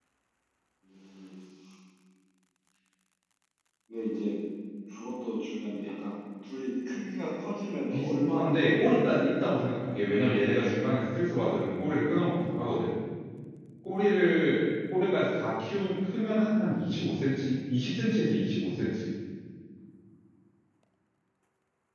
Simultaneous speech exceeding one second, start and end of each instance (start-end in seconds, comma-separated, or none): 7.9-9.3